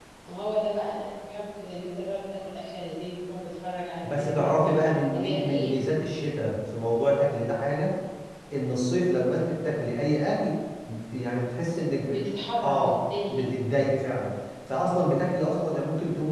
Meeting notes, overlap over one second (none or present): present